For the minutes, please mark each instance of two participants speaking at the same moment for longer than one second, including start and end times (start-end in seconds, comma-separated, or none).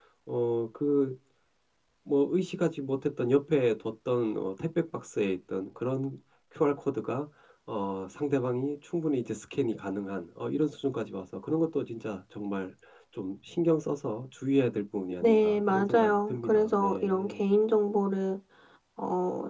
15.2-17.4